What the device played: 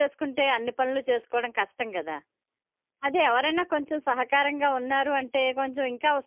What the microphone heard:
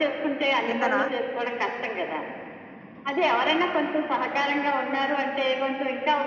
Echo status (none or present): present